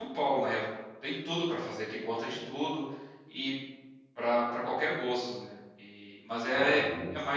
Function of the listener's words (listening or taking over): listening